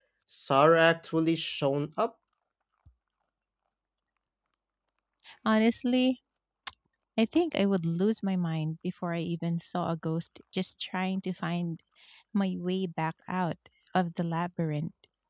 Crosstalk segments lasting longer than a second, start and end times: none

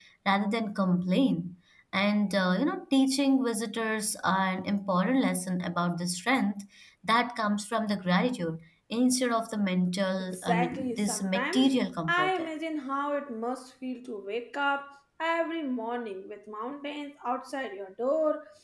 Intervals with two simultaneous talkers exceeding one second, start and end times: 10.2-11.6

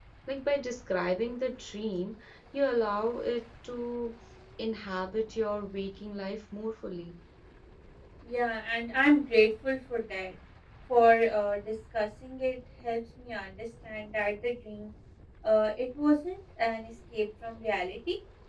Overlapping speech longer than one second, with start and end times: none

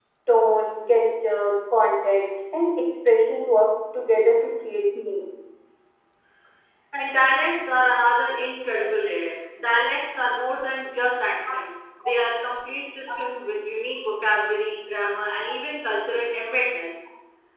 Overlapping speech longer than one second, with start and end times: none

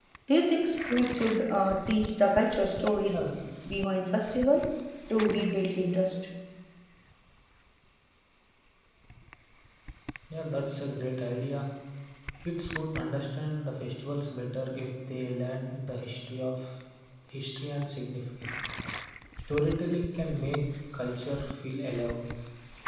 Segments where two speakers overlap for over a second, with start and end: none

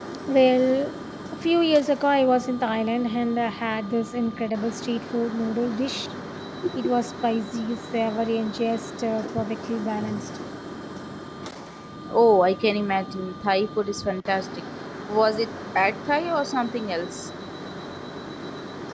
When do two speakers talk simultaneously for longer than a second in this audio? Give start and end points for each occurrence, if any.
none

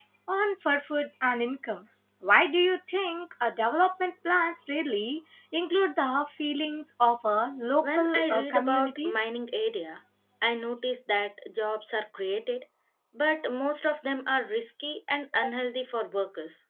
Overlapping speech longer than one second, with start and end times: 7.8-9.3

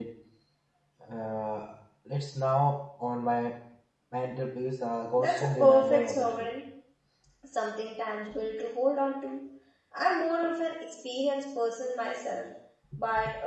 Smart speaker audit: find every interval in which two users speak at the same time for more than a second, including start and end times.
5.2-6.5

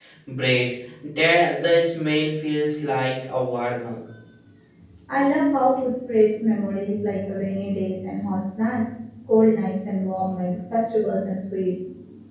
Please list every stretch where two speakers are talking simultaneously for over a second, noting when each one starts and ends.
none

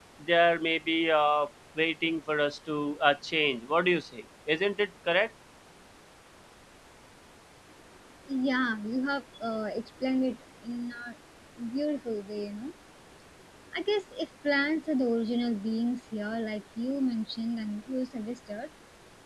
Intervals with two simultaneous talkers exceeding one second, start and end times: none

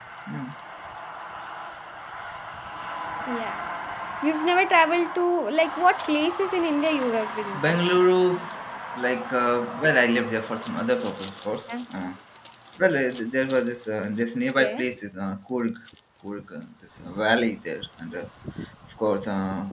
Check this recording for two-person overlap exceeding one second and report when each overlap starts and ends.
none

